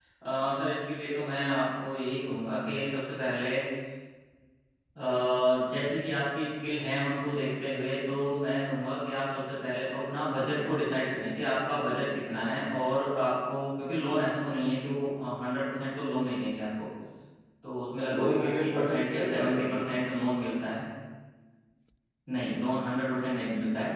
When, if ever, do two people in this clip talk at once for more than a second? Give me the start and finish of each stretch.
18.0-19.7

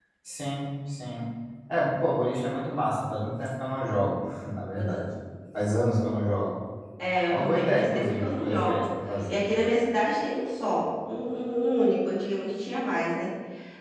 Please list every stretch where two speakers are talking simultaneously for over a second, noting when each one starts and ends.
7.3-9.4

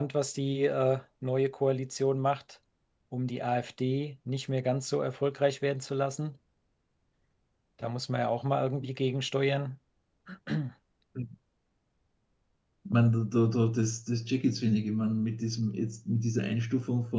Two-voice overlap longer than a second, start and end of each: none

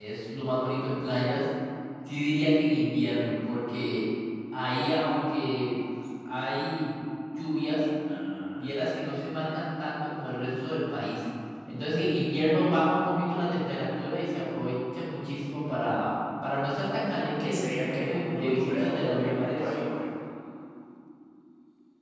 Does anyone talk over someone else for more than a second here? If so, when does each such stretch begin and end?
17.4-19.7

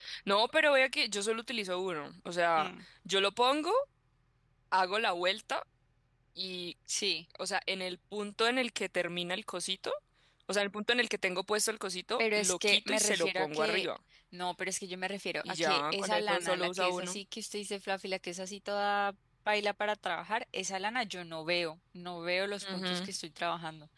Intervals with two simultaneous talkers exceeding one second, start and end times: 12.2-13.8, 15.4-17.2

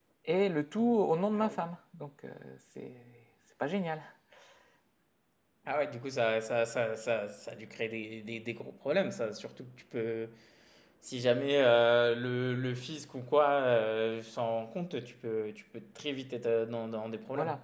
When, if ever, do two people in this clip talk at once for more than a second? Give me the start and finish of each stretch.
none

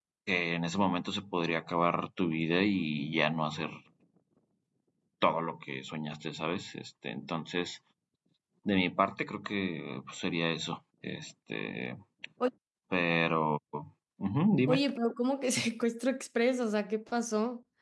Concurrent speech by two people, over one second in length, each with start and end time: none

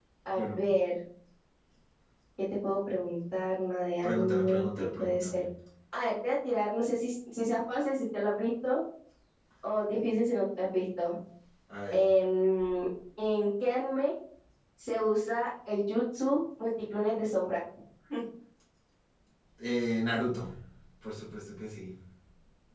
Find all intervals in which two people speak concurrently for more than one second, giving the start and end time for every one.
4.0-5.4

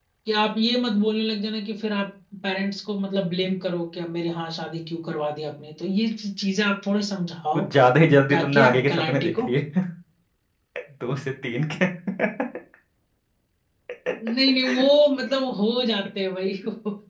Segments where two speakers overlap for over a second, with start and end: 8.3-9.5

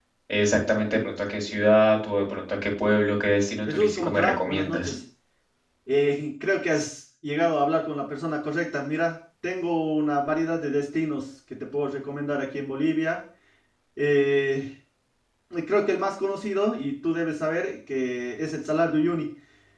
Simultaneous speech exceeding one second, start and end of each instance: 3.7-4.9

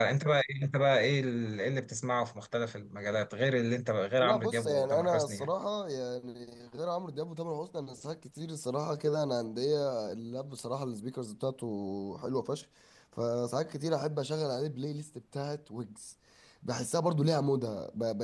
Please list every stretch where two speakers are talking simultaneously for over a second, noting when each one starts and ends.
4.2-5.5

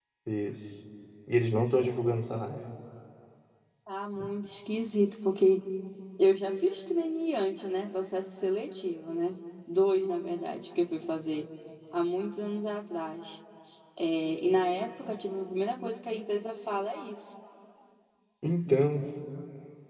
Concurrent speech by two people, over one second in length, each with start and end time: none

